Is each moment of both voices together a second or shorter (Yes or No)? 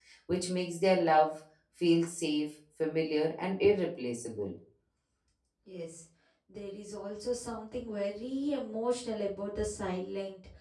Yes